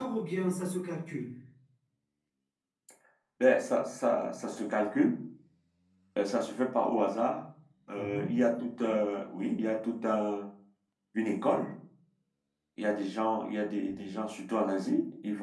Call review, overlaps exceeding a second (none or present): none